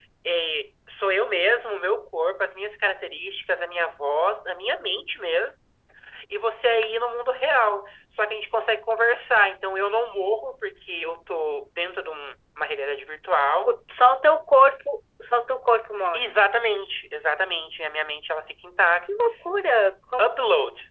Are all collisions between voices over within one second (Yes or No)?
Yes